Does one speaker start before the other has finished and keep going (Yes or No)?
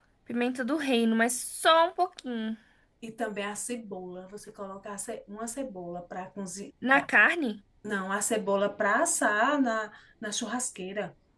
No